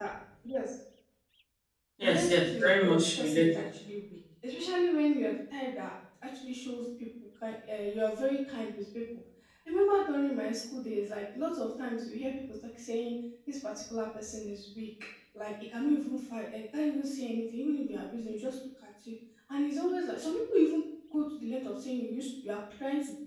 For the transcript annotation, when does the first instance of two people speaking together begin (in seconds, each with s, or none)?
2.0 s